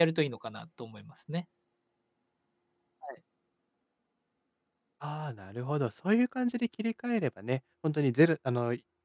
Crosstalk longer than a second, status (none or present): none